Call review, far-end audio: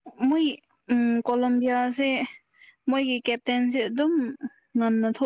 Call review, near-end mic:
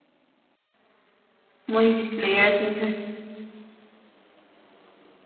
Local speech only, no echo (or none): ꯃꯣꯏꯒꯤ ꯄ꯭ꯂꯦꯌꯔꯁꯤꯡꯁꯦ